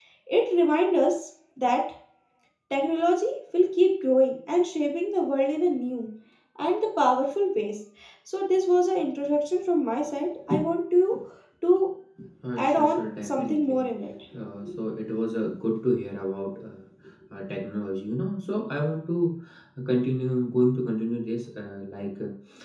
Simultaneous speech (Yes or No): Yes